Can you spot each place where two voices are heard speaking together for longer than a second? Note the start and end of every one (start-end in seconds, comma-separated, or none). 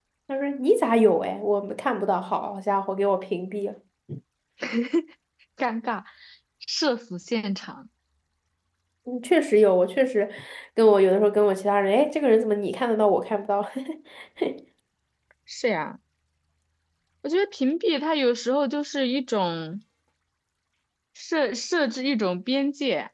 none